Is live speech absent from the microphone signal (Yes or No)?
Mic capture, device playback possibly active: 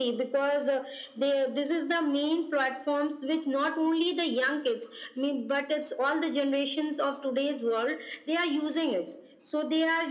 Yes